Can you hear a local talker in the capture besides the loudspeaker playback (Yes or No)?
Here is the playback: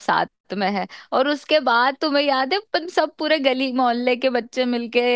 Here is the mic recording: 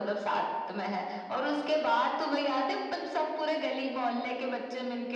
No